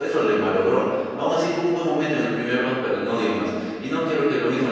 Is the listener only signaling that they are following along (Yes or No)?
Yes